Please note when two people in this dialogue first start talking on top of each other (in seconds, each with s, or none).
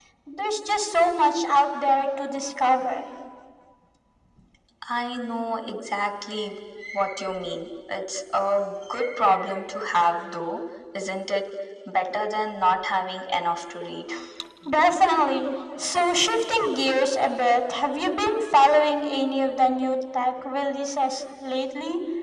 none